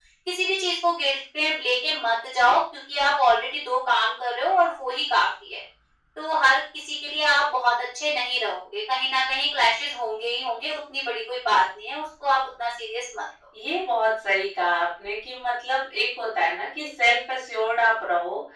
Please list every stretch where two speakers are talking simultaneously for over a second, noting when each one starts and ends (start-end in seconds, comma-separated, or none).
none